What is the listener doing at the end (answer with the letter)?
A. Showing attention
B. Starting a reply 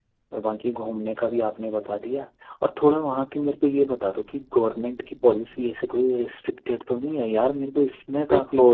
B